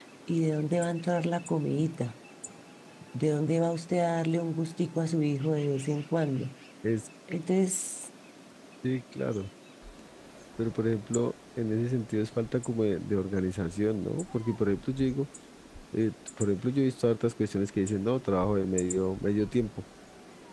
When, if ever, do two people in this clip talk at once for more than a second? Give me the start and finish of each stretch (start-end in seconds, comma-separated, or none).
none